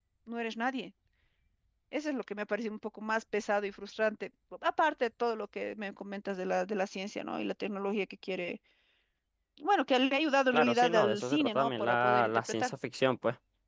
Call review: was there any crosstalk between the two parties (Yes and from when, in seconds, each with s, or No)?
Yes, from 10.5 s